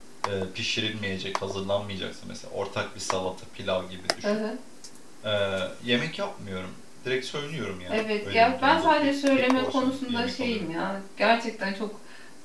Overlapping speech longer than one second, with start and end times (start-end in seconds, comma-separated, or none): 7.9-10.7